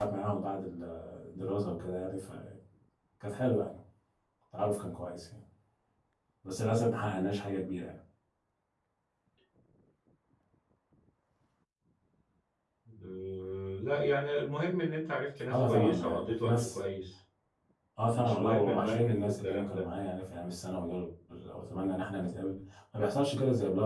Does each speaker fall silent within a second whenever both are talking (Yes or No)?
No